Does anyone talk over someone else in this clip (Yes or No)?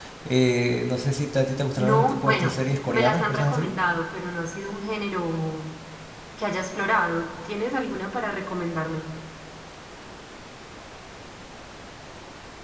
Yes